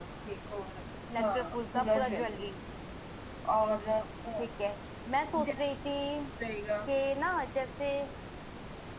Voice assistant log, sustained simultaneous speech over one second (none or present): present